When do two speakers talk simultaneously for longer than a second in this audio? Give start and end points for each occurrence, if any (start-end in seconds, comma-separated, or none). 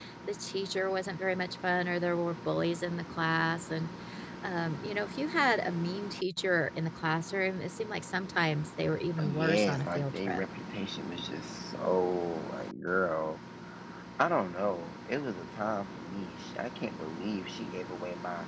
9.2-10.4